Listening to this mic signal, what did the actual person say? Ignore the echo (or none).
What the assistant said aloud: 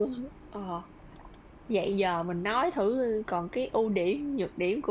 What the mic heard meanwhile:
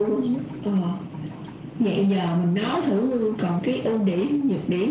none